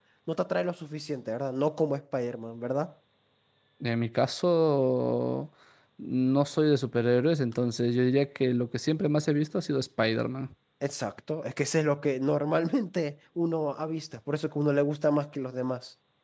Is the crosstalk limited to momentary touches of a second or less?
Yes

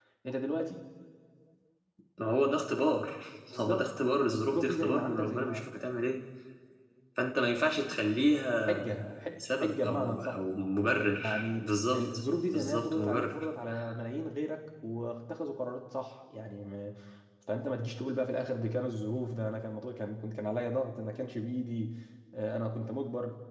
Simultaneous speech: Yes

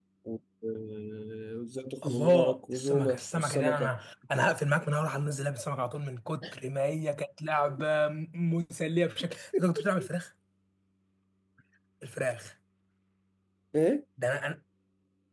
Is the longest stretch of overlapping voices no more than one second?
No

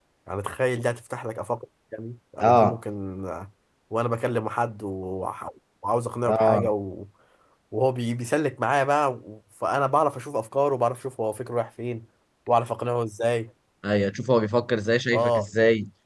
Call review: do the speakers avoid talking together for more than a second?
Yes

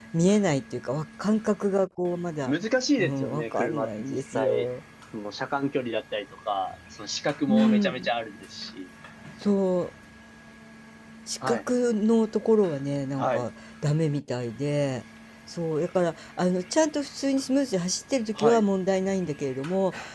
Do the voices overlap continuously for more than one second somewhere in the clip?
Yes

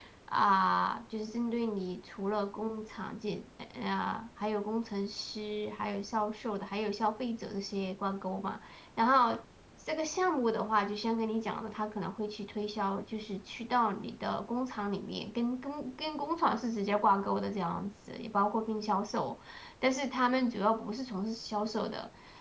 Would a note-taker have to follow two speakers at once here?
No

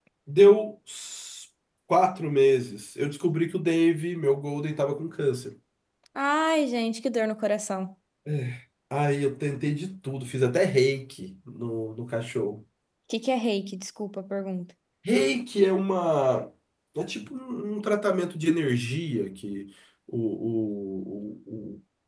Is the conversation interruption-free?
Yes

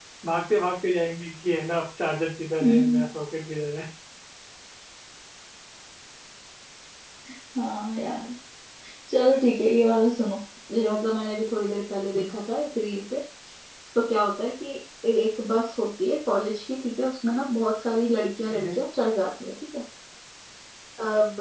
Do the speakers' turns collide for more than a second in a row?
No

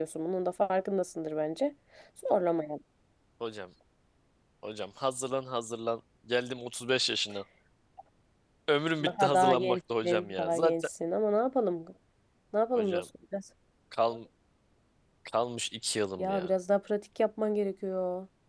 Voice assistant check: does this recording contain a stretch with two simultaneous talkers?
Yes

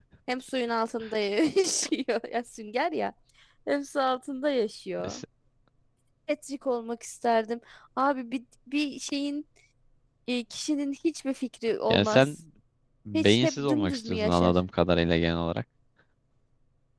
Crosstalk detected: Yes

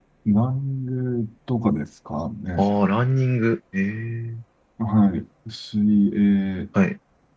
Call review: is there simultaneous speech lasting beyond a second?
No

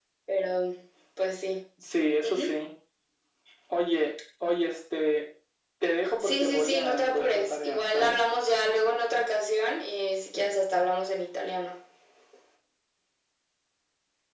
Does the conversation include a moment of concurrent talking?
Yes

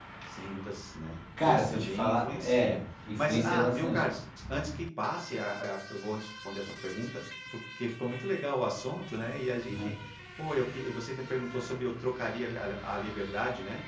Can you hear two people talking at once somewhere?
Yes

